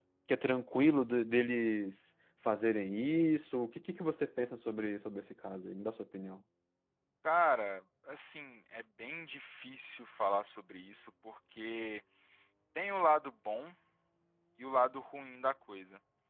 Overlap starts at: none

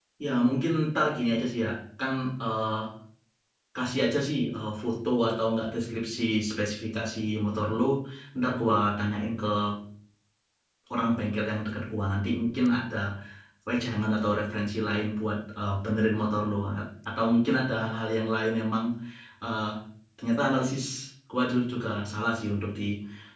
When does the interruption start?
none

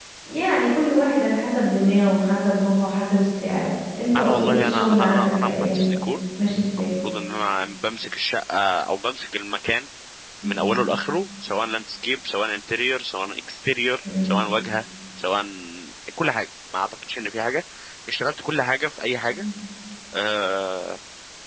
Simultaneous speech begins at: 4.2 s

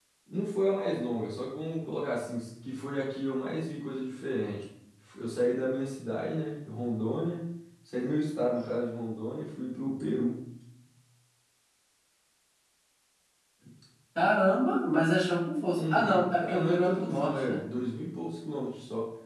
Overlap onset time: 15.8 s

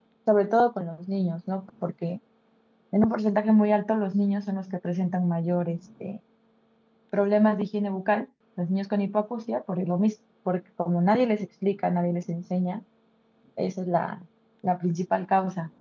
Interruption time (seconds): none

